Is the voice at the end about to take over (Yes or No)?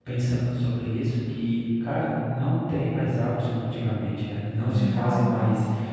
No